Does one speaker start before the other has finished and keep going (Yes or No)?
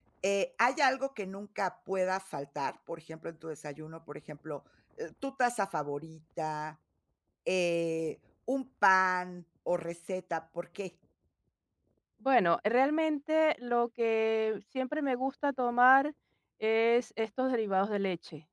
No